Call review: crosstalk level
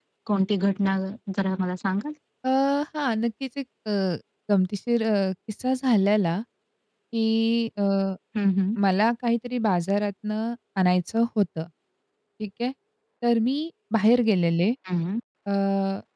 none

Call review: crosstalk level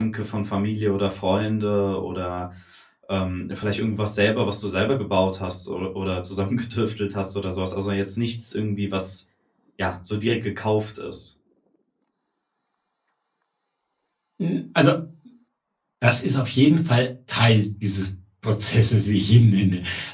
none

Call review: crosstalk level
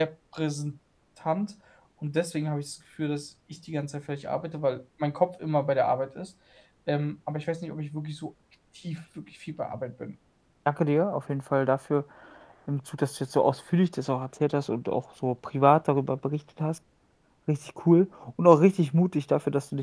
none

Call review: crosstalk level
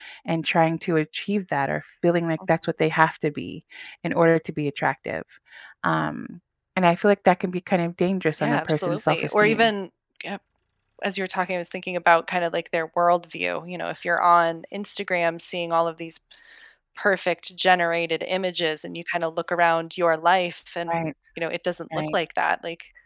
present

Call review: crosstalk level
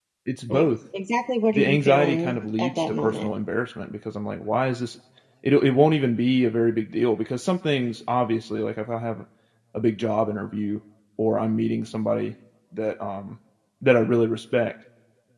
present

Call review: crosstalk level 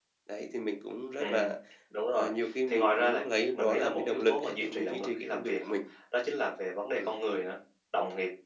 present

